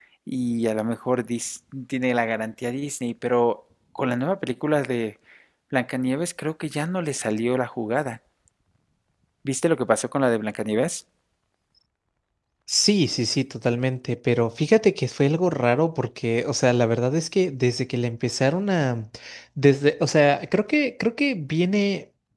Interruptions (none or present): none